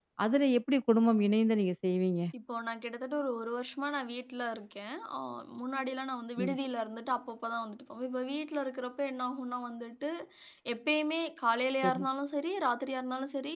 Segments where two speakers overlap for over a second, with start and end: none

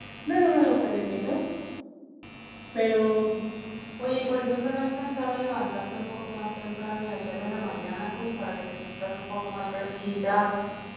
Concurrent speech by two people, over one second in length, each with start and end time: none

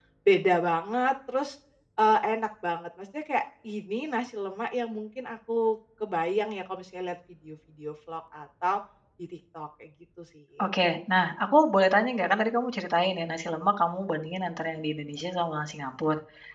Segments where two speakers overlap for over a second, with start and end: none

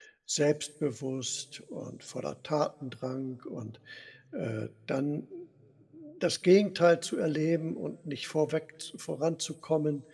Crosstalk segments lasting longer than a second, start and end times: none

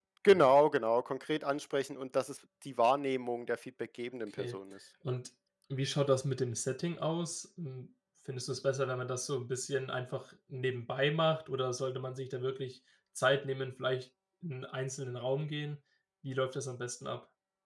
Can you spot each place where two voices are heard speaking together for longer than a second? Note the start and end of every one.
none

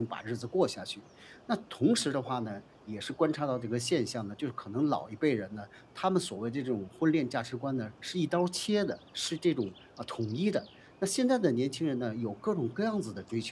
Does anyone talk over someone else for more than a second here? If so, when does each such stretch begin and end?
none

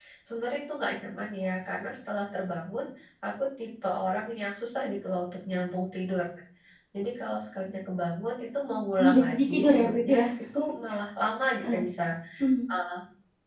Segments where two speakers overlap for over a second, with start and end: 9.0-10.3

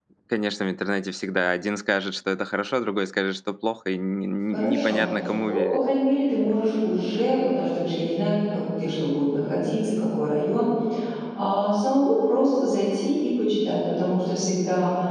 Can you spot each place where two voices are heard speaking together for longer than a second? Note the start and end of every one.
none

